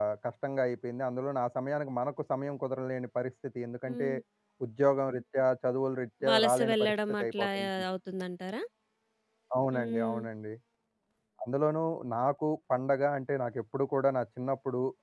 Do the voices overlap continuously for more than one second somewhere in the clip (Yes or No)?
Yes